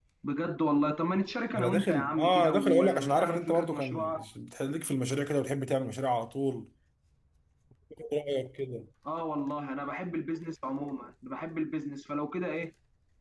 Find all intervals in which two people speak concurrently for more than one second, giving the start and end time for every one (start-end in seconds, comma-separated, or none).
1.6-4.2